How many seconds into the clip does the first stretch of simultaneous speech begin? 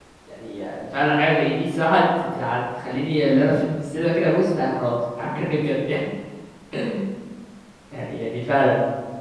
none

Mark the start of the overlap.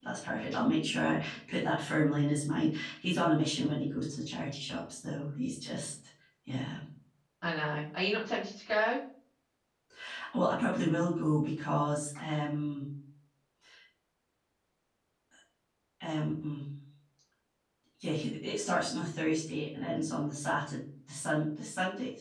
none

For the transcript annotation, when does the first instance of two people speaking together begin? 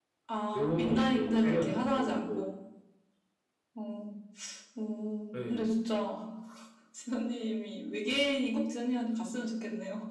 1 s

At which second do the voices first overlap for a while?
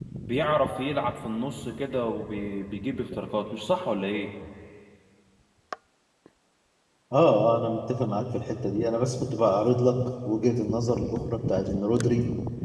none

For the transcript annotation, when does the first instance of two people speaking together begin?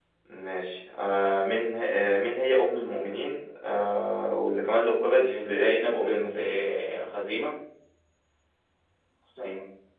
5 s

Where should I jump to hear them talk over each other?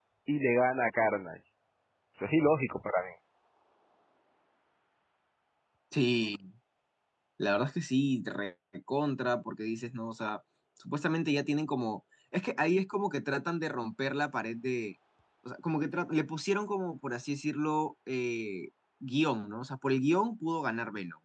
none

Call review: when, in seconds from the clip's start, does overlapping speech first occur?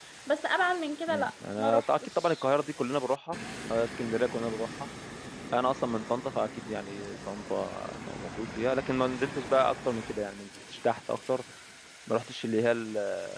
1 s

